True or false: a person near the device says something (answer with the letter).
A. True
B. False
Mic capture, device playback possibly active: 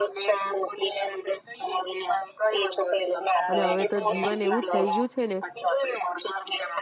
A